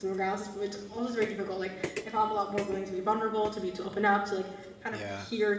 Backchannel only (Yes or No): Yes